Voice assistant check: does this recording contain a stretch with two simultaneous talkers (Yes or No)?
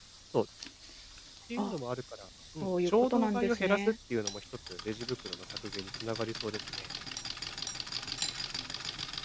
Yes